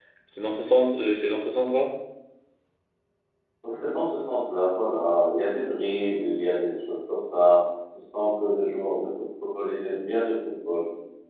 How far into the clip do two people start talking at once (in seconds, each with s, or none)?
none